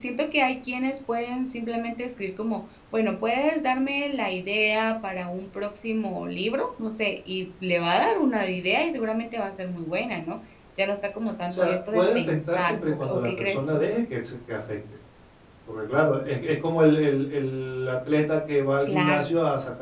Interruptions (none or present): present